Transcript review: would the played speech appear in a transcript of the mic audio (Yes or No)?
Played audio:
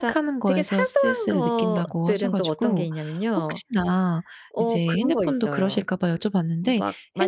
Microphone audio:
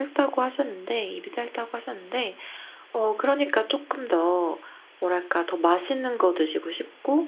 No